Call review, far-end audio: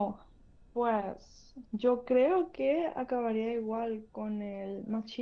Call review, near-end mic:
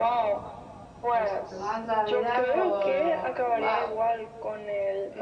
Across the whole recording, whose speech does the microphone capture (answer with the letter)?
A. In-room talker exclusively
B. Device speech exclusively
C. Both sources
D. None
C